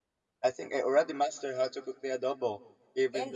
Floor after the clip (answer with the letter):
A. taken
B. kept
A